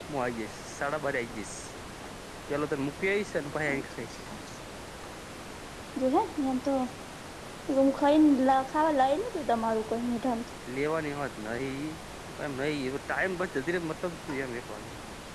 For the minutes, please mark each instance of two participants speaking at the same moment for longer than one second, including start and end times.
none

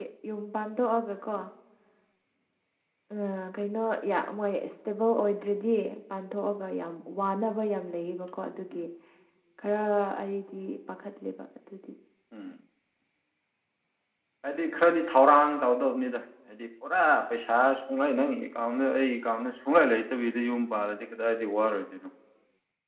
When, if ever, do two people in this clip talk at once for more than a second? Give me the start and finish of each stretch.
none

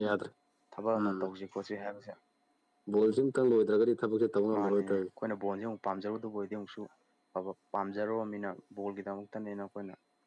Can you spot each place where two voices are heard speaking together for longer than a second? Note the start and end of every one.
none

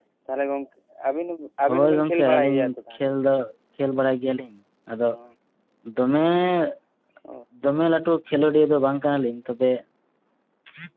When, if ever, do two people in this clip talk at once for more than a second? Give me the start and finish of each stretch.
1.7-3.1

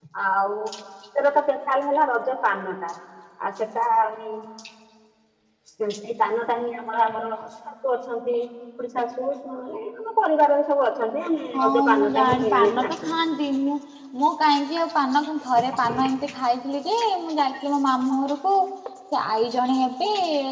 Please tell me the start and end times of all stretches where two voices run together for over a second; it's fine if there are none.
11.6-13.1

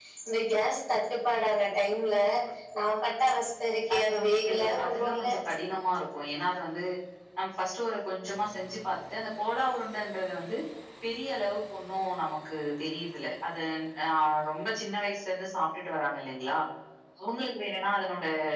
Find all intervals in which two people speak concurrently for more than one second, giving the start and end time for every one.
3.9-5.3

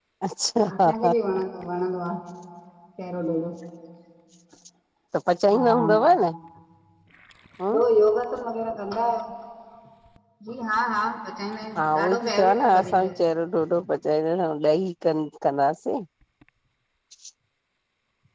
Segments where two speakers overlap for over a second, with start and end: 11.8-13.1

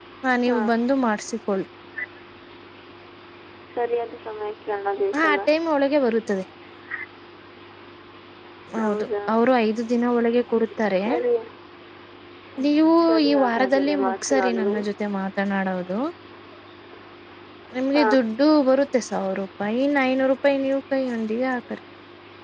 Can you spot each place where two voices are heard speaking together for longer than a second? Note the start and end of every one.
13.1-14.8

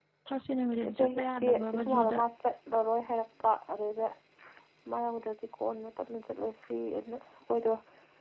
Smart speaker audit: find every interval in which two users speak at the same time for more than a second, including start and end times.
0.9-2.2

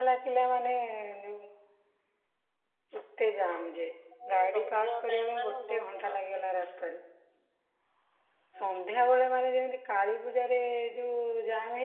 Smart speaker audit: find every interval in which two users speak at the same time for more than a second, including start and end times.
4.5-6.2

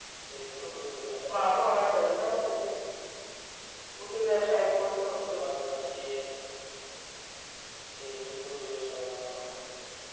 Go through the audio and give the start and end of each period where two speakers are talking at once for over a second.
0.5-1.9

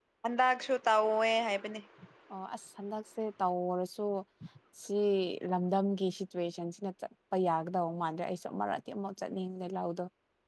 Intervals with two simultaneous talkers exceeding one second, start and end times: none

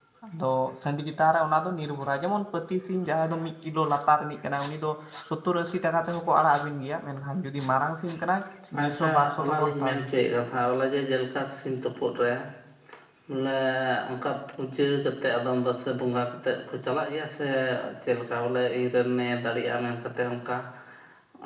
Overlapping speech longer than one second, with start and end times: 8.8-10.1

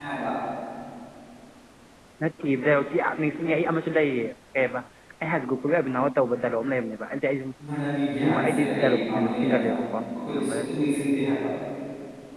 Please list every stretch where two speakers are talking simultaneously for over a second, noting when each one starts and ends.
8.2-9.7

